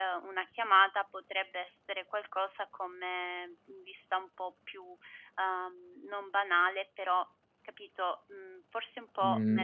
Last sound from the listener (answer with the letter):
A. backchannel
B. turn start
B